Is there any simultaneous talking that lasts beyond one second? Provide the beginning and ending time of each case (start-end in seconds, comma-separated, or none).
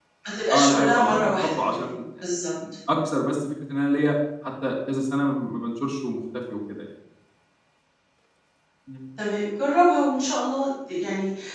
0.5-1.9